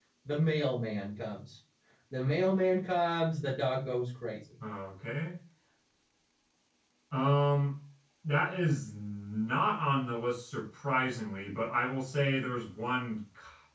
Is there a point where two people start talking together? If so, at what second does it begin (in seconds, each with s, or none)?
none